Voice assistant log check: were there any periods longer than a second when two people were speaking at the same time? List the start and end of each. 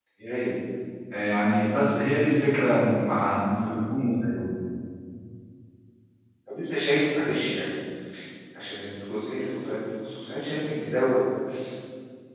none

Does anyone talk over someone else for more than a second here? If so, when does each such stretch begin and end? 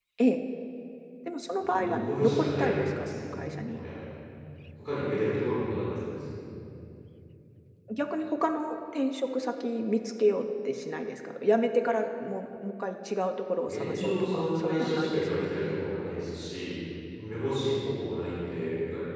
1.6-3.8, 13.7-15.5

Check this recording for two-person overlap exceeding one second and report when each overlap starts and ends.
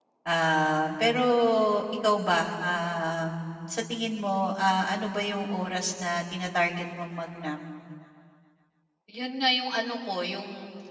none

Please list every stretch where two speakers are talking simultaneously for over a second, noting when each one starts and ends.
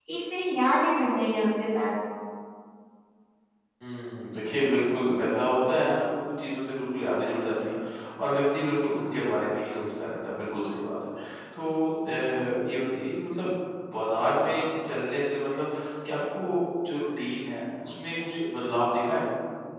none

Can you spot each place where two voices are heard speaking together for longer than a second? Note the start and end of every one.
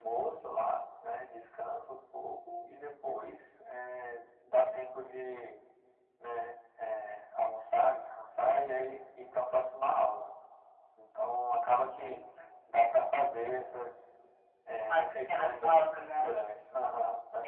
14.8-16.3

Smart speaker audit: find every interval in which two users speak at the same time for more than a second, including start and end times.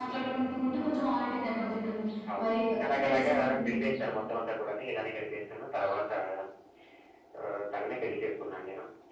2.4-3.9

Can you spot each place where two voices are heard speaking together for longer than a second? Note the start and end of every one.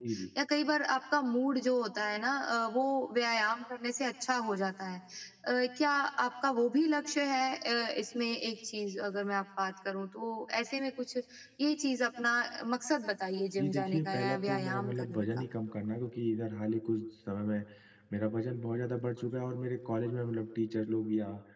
13.6-15.4

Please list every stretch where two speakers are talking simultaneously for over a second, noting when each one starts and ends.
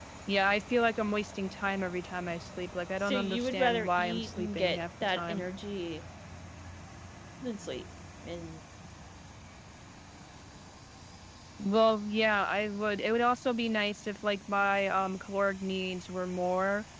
3.0-5.4

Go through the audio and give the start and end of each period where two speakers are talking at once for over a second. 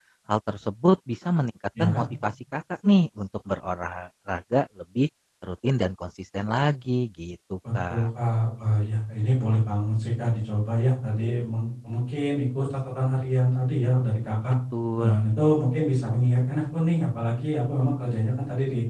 none

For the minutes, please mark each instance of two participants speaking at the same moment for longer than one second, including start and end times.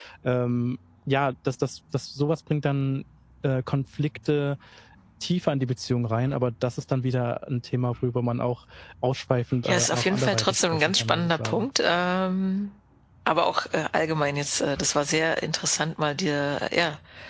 9.6-11.7

